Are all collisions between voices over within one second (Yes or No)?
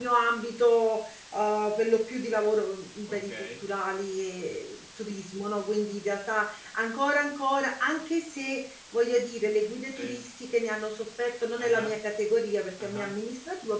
Yes